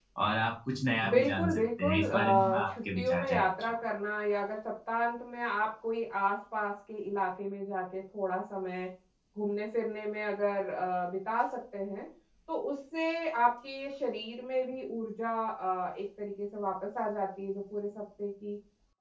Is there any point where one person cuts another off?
Yes, from 1.1 s

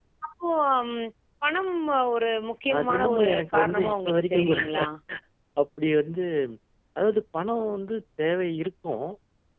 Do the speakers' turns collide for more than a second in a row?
Yes, from 2.7 s

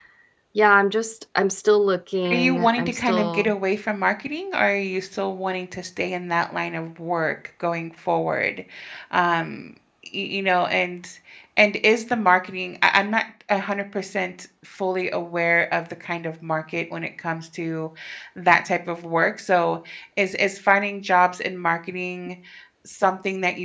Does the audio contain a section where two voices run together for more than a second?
Yes, from 2.2 s

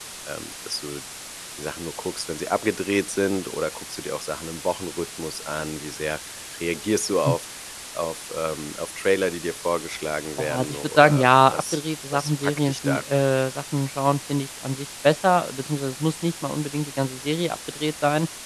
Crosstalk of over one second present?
Yes, from 10.4 s

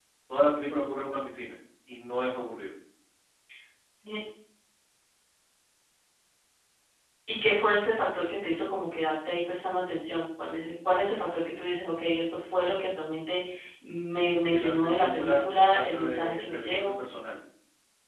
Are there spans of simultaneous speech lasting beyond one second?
Yes, from 14.5 s

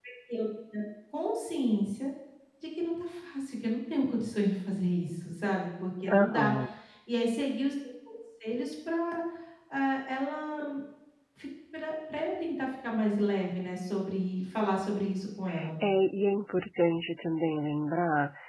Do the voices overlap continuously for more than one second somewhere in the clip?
No

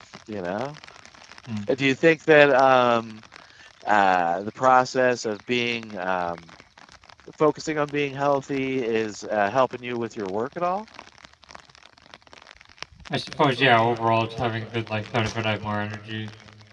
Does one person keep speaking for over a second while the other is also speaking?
No

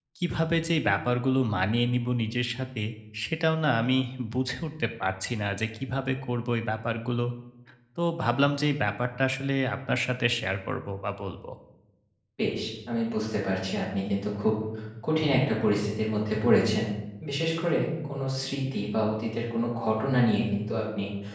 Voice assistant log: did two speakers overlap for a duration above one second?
No

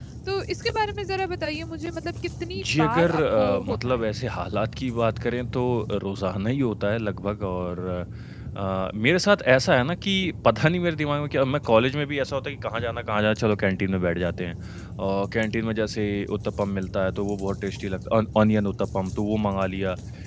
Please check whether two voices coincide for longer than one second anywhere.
Yes, from 2.6 s

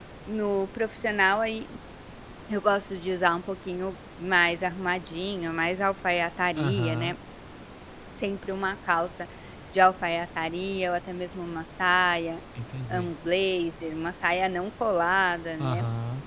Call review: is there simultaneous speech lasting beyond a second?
No

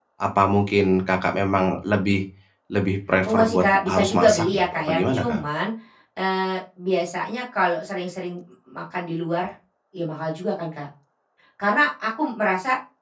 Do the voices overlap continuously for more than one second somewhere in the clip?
Yes, from 3.2 s

